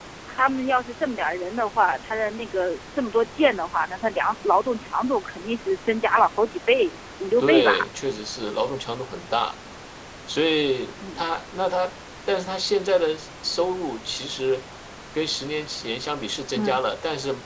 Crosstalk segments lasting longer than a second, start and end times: none

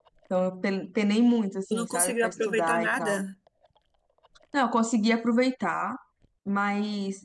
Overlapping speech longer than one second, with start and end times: 1.7-3.2

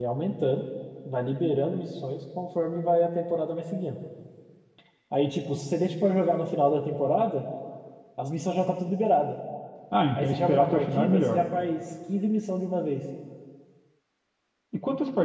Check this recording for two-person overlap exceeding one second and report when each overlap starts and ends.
10.2-11.4

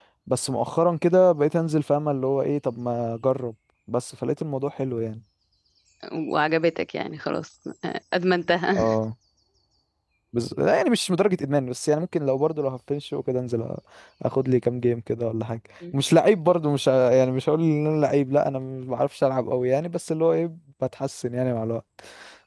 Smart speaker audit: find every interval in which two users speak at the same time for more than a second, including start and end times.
none

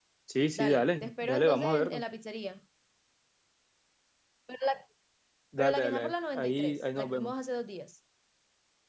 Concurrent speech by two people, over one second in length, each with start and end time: 0.6-2.0, 5.6-7.3

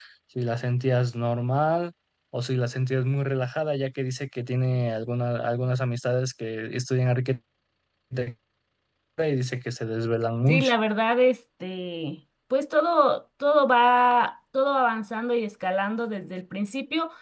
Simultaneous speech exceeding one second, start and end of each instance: none

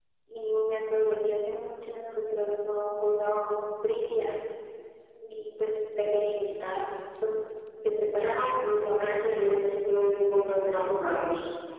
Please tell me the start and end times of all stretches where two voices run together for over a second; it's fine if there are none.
8.2-9.6

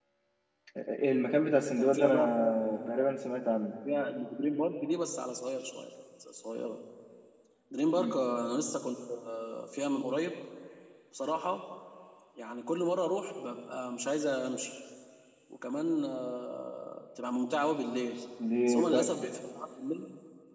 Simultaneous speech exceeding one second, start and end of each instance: 1.8-3.0

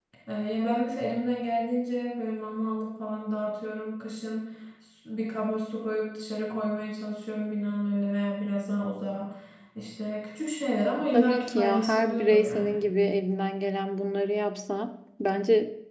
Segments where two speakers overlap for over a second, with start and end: 11.1-12.8

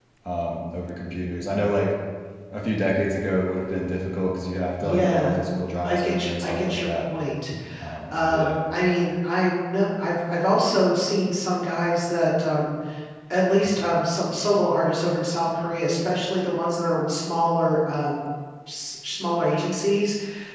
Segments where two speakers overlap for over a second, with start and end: 5.8-7.1

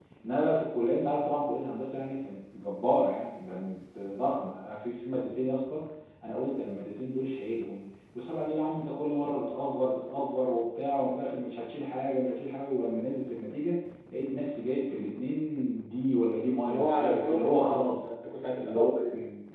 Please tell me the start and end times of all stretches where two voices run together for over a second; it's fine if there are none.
16.7-18.1

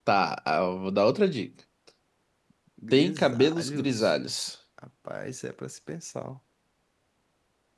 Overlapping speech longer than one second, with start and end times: 2.9-4.2

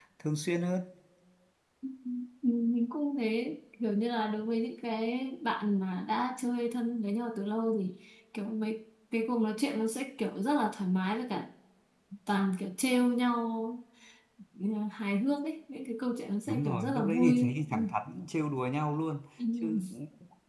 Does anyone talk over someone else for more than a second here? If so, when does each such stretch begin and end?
16.5-17.9

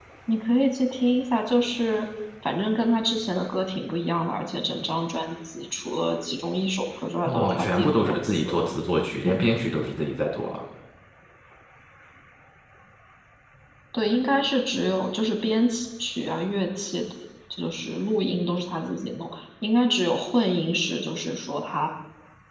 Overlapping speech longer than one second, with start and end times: 7.2-8.7

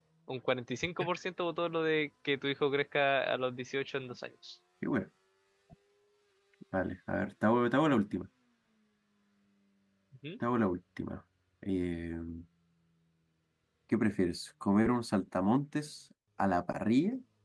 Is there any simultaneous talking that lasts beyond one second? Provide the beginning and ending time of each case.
none

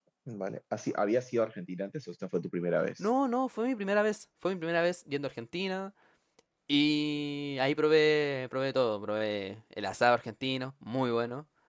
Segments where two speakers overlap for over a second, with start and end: none

